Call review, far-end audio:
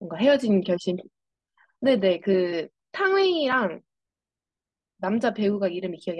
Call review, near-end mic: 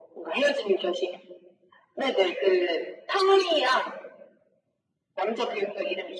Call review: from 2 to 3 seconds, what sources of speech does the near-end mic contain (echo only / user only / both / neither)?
echo only